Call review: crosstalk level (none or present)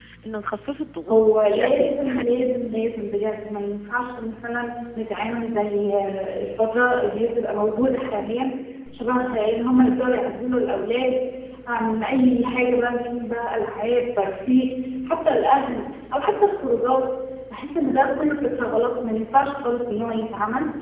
present